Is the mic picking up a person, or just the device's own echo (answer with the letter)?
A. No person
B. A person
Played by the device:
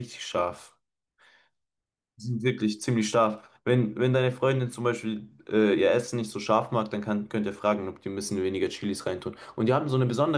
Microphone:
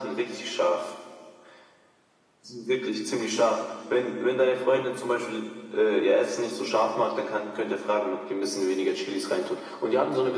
A